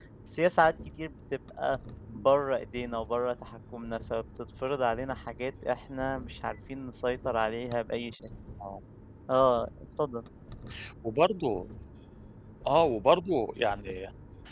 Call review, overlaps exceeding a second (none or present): none